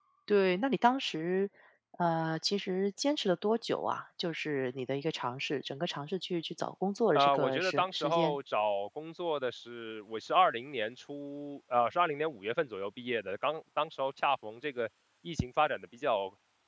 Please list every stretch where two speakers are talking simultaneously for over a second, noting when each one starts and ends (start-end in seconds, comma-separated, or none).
7.2-8.4